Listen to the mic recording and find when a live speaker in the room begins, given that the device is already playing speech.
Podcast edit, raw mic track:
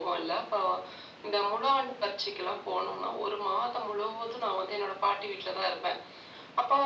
none

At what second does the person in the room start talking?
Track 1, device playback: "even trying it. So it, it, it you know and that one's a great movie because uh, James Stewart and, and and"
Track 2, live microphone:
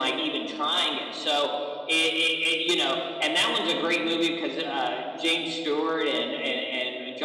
none

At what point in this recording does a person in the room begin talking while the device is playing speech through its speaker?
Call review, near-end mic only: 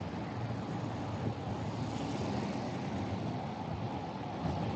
none

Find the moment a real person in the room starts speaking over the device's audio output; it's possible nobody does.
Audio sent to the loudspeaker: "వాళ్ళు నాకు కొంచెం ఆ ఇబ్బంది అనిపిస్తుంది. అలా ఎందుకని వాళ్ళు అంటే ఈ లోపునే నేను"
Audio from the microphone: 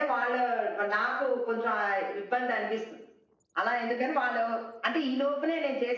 none

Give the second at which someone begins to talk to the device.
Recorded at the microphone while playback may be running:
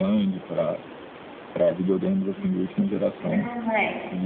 2.4 s

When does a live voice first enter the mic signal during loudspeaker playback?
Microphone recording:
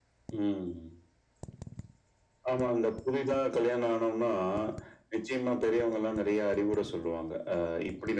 none

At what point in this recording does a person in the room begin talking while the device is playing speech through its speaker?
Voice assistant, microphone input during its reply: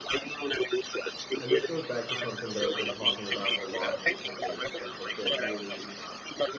1.4 s

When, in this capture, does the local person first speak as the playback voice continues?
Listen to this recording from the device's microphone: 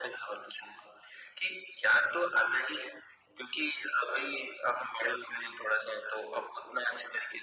none

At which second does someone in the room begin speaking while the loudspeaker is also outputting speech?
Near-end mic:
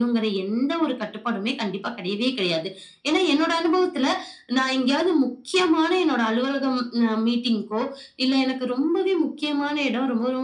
none

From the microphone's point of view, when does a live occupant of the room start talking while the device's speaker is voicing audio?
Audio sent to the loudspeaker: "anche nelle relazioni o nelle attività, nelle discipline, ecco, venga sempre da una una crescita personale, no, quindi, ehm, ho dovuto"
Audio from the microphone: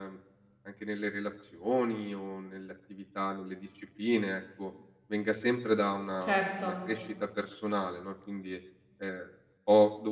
6.2 s

